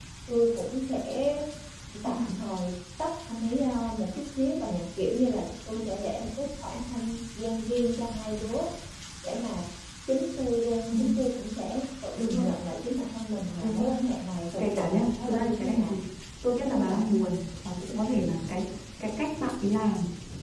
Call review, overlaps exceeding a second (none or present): present